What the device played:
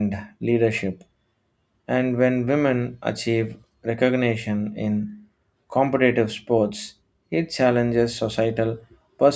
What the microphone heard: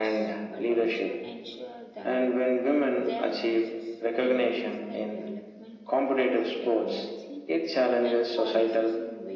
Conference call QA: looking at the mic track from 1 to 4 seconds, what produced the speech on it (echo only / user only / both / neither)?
both